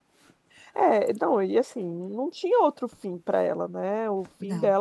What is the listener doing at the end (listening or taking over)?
listening